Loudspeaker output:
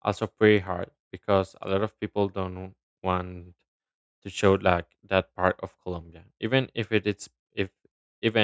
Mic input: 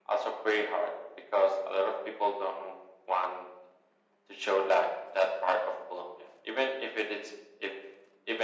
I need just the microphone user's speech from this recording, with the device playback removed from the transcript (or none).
none